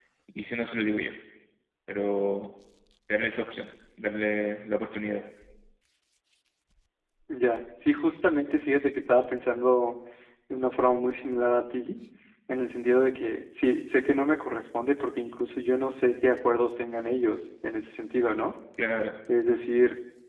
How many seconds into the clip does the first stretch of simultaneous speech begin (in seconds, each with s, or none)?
none